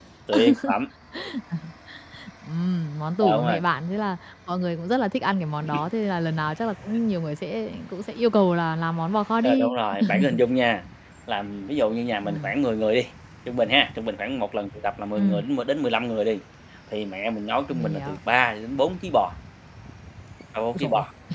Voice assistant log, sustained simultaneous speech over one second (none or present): none